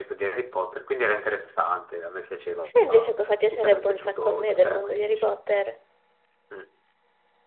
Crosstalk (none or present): present